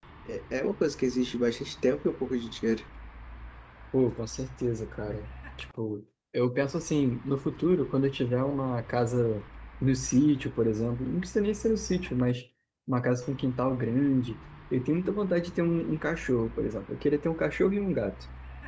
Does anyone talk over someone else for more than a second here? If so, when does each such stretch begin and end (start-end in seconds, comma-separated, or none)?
none